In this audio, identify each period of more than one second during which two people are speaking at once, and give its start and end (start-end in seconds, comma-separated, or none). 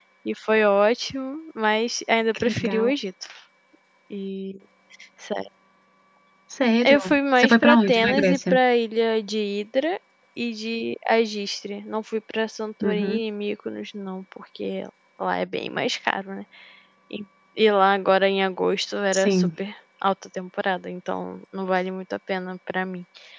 6.8-8.6